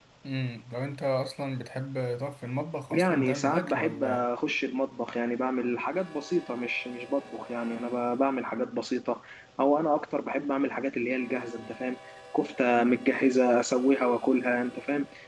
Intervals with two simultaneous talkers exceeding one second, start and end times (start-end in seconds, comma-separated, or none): 2.9-4.3